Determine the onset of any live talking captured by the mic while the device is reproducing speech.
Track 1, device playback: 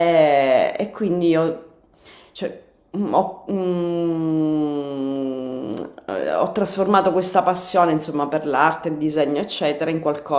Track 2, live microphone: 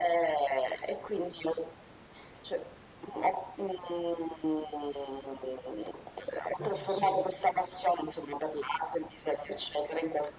6.6 s

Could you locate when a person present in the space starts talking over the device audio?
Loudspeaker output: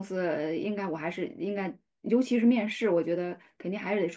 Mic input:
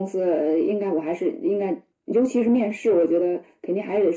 none

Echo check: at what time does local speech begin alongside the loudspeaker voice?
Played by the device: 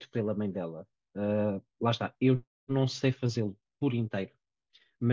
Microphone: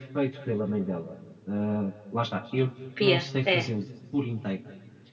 2.9 s

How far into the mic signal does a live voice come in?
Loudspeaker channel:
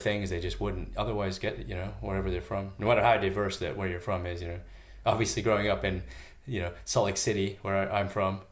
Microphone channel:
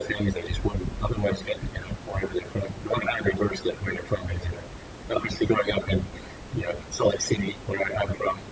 none

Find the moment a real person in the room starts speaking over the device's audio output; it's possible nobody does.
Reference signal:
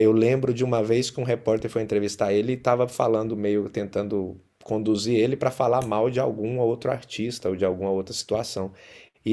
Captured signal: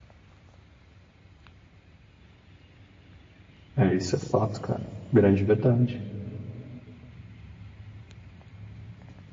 3.8 s

